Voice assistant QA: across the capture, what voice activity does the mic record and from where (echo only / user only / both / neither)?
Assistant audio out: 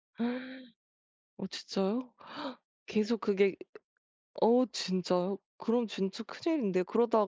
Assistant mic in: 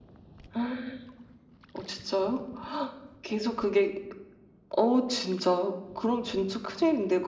echo only